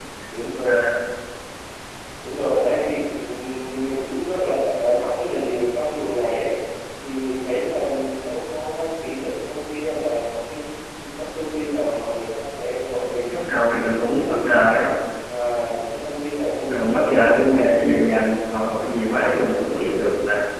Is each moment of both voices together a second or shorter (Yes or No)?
No